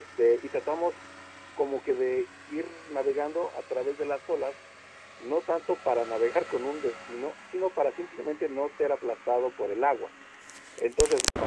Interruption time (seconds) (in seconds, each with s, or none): none